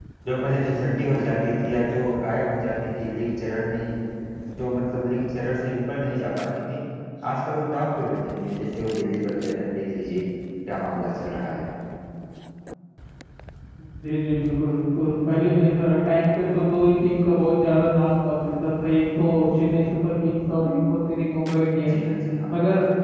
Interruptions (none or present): none